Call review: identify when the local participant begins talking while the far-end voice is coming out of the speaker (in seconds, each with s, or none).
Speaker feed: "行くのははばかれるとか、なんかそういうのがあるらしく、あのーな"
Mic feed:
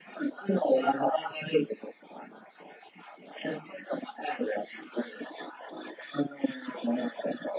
none